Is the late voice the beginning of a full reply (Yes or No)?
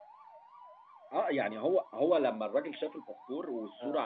No